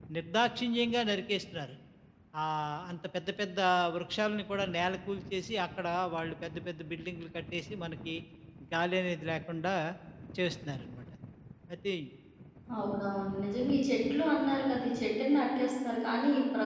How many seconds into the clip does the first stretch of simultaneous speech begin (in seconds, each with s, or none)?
none